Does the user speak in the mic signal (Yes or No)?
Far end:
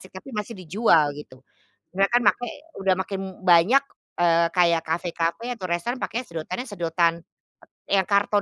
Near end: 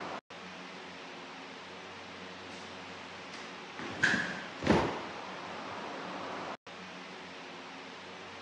No